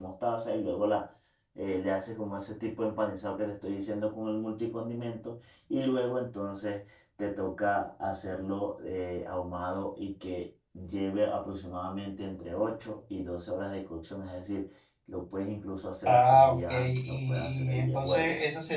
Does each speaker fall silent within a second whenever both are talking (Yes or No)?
No